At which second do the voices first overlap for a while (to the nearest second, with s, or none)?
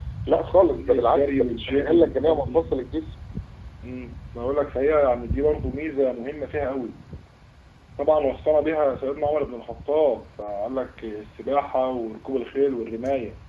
1 s